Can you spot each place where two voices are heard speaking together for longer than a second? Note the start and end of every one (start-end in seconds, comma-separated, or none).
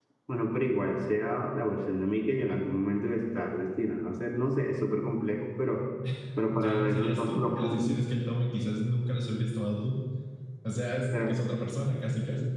6.5-8.0